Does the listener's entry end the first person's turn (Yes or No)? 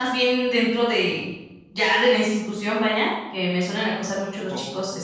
No